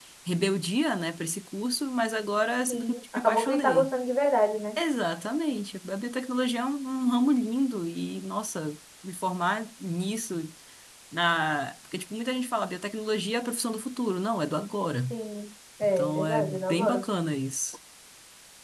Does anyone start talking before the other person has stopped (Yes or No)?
Yes